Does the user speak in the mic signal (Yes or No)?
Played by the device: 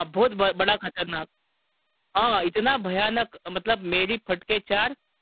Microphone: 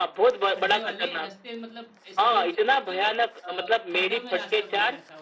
Yes